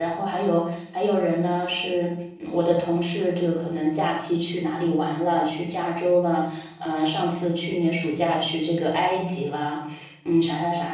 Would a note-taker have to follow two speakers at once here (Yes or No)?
No